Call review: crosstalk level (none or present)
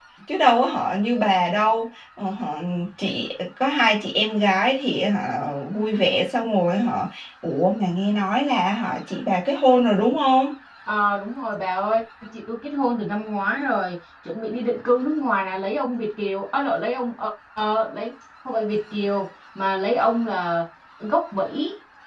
none